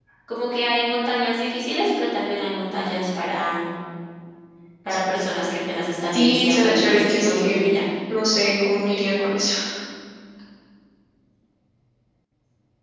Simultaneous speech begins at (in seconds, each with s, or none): 6.0 s